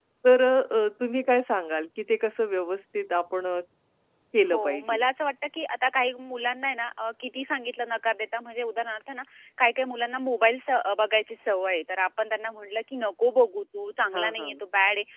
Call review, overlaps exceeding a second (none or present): none